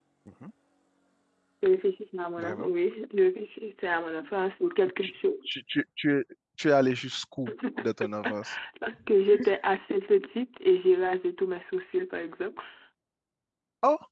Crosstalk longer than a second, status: none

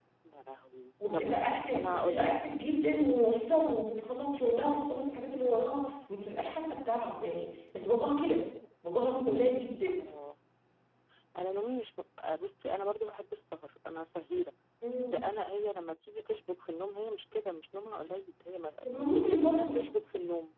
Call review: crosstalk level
present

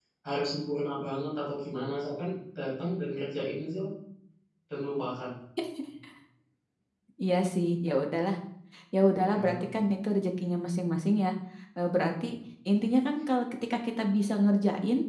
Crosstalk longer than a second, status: none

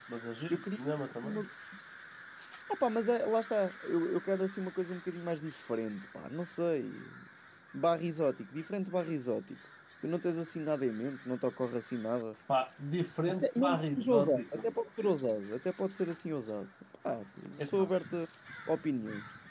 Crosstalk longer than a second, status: present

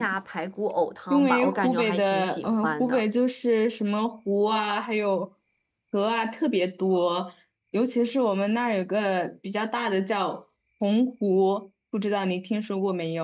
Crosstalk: present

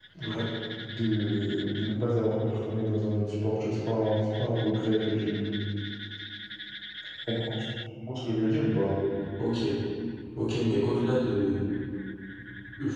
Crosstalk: none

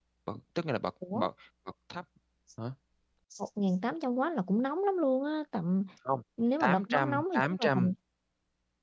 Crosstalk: present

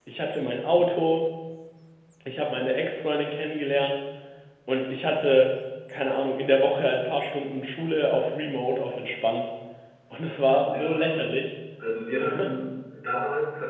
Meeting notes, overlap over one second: none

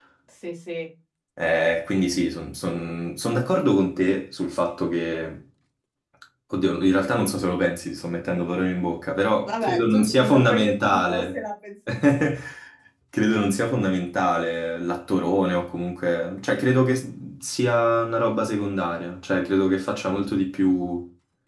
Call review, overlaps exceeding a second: present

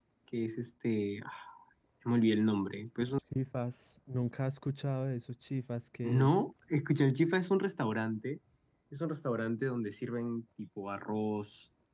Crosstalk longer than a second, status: none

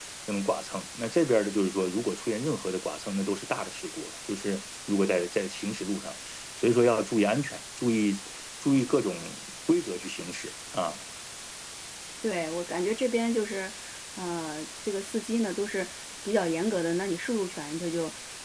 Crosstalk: none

